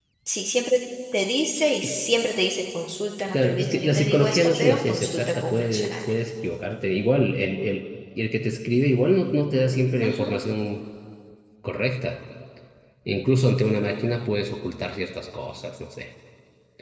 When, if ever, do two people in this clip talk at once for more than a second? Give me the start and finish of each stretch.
3.3-5.9

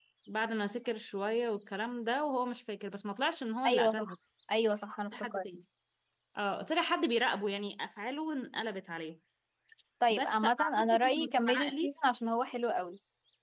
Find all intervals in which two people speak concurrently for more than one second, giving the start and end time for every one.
10.1-11.9

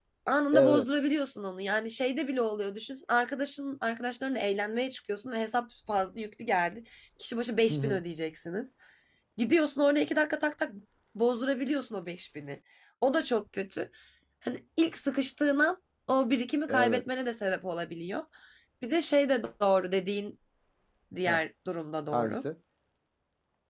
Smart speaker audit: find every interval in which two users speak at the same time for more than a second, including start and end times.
none

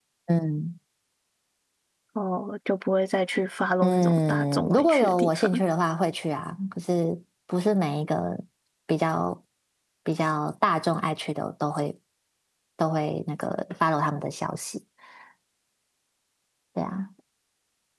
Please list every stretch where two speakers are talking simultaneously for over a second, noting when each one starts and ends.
3.8-5.5

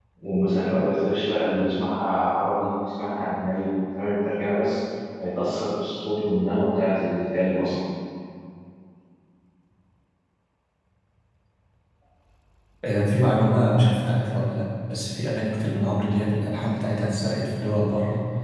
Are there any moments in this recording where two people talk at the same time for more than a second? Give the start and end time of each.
none

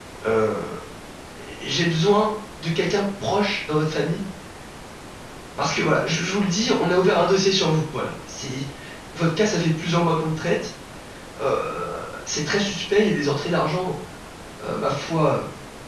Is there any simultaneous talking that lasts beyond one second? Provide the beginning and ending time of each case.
none

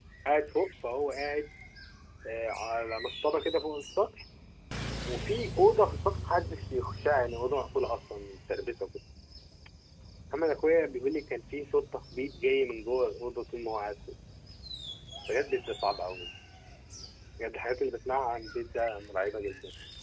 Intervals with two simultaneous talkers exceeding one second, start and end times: none

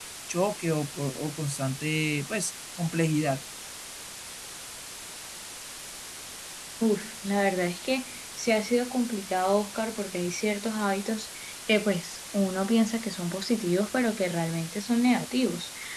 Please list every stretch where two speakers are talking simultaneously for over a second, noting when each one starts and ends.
none

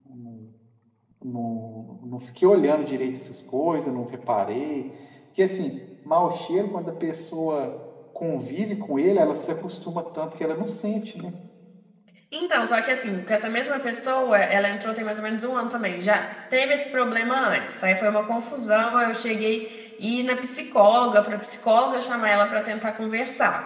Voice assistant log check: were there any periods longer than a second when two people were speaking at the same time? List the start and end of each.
none

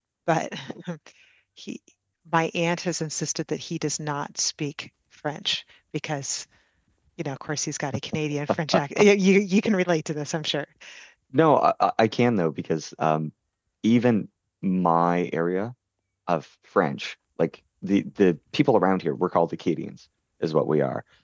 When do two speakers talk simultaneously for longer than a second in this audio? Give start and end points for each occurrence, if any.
none

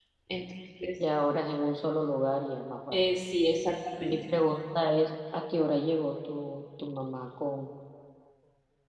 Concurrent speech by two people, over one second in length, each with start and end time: none

